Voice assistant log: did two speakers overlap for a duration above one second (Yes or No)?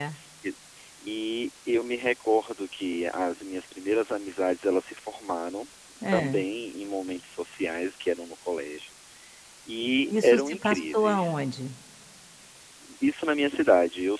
Yes